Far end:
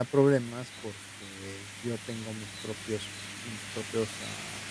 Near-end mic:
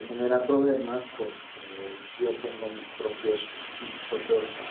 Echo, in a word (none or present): present